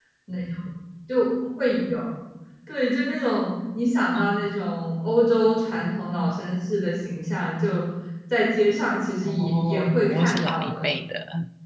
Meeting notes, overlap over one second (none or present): present